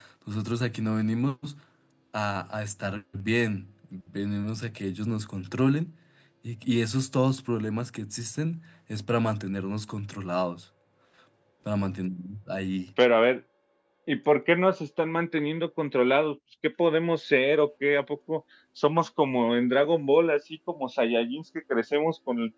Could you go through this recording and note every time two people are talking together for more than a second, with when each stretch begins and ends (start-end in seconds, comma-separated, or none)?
none